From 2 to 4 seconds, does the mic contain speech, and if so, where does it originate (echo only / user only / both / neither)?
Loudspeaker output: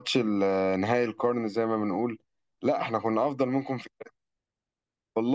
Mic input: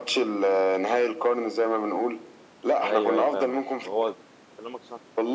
both